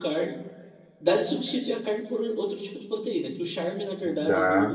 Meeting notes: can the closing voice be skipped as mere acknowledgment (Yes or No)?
Yes